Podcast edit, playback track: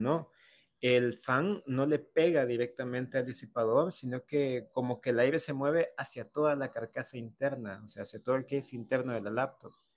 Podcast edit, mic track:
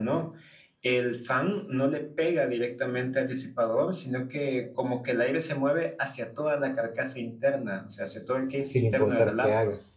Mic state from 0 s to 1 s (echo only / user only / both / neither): echo only